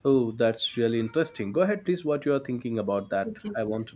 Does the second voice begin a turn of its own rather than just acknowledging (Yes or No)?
Yes